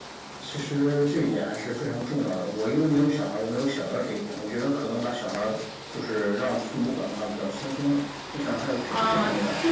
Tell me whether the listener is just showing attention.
No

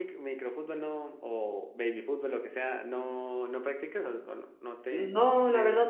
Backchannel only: No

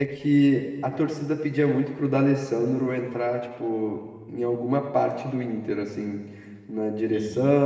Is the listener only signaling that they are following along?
Yes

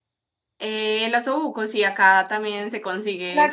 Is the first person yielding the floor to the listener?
Yes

